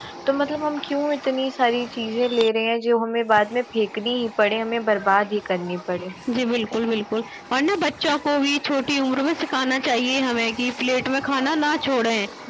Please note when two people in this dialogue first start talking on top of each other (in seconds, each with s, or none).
none